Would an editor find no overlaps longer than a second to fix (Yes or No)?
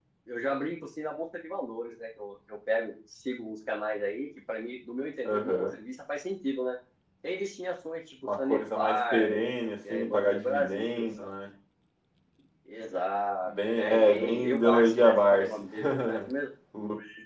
No